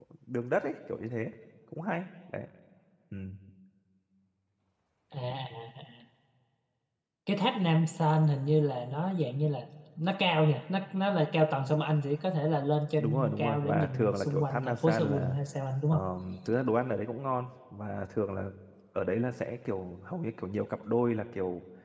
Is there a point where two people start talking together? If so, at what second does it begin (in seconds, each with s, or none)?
12.9 s